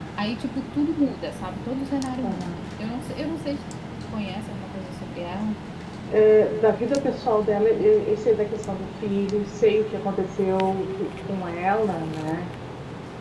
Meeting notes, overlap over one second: none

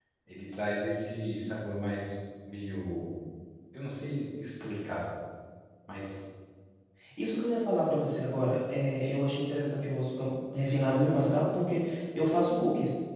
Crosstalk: none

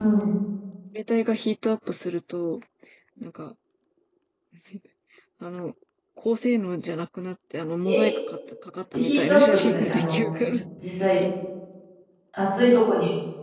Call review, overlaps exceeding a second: present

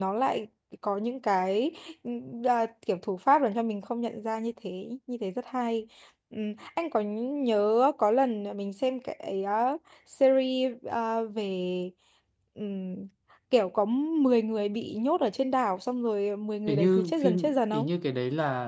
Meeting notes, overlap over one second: present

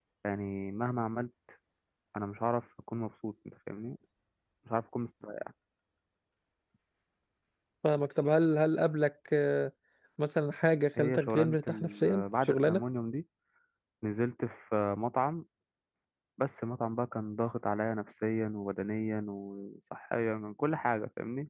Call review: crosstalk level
present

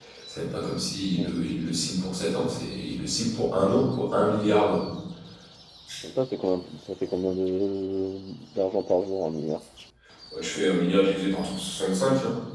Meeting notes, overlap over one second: none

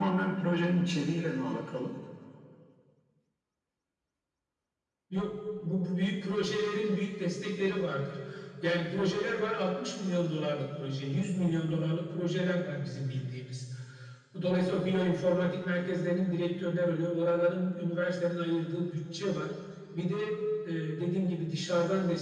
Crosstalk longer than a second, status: none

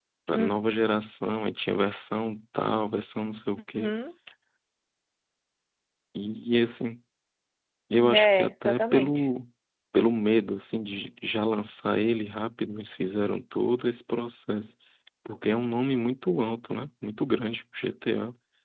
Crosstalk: present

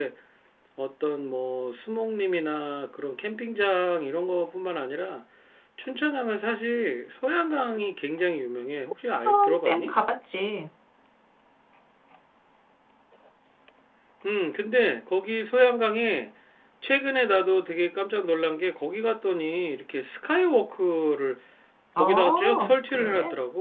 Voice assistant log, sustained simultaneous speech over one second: present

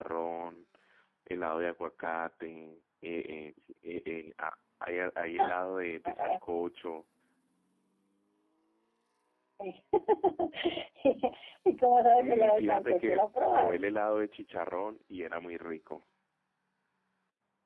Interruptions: present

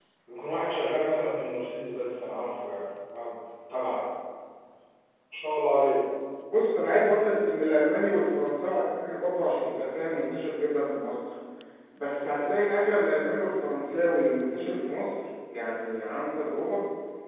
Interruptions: none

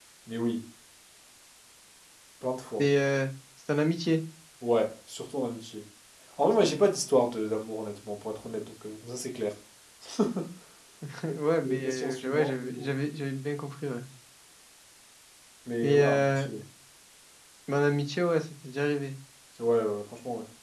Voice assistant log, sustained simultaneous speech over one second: present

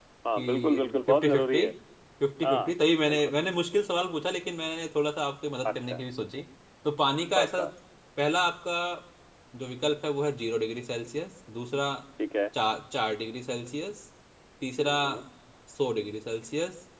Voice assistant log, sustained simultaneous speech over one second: present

